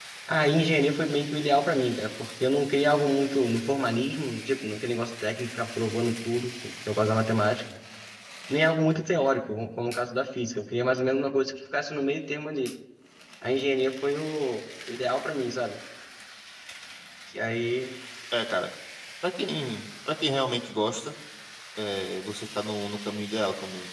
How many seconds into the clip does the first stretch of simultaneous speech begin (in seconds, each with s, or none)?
none